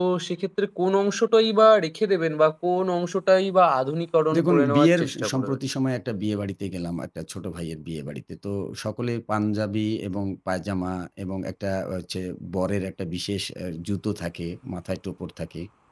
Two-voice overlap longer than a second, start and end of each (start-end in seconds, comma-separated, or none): 4.4-5.6